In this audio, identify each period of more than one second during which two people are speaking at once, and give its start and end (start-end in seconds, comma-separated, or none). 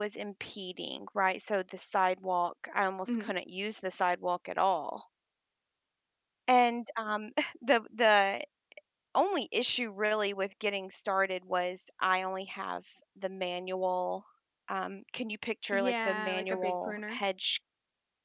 15.7-17.2